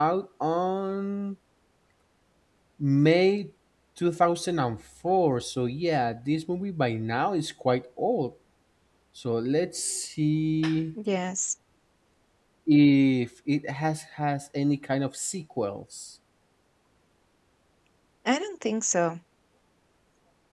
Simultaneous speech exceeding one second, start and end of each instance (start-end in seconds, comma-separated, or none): none